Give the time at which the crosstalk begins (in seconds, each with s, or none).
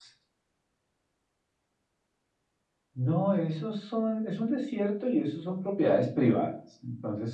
none